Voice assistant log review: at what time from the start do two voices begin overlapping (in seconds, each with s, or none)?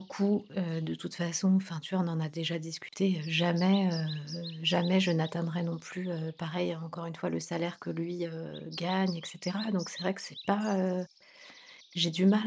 none